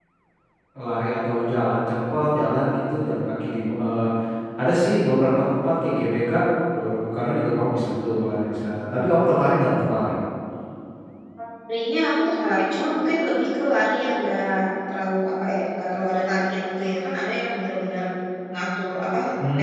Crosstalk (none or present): none